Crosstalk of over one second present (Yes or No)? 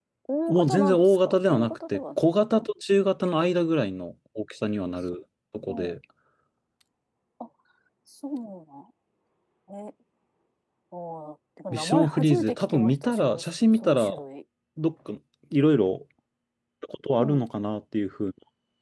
Yes